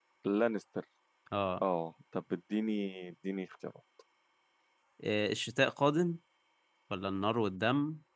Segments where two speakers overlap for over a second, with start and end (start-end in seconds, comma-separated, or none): none